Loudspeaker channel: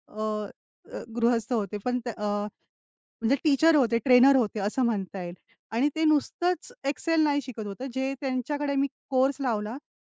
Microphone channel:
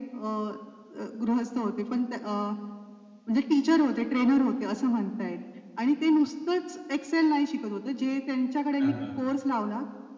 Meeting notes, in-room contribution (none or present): present